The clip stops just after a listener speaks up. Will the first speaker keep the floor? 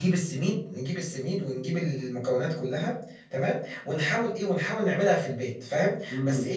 Yes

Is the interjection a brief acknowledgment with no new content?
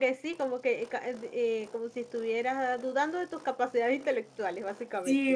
No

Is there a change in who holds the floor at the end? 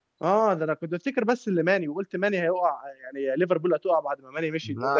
No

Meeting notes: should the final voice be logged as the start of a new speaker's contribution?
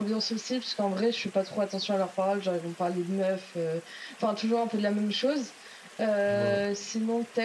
No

